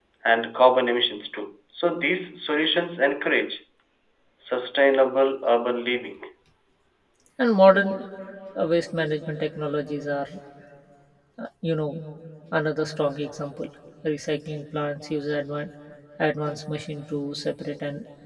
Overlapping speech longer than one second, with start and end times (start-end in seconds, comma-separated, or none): none